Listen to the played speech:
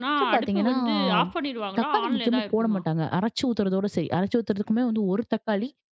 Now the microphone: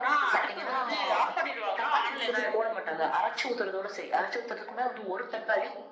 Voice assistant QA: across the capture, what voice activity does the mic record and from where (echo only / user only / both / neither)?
echo only